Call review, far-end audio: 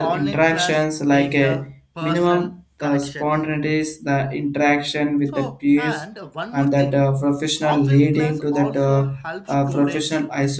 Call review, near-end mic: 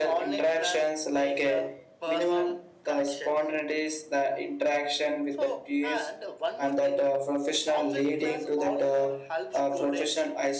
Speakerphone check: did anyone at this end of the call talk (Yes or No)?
No